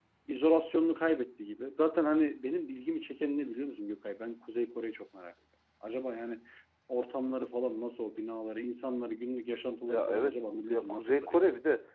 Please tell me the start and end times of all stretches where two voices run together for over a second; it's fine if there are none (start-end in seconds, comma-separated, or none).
9.8-11.4